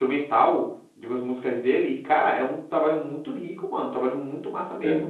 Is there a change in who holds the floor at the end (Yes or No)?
No